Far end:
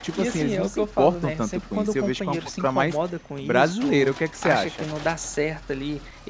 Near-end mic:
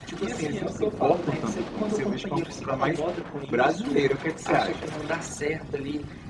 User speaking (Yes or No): No